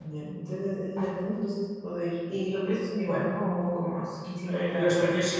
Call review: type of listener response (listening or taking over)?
taking over